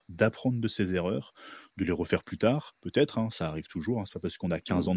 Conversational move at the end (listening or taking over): listening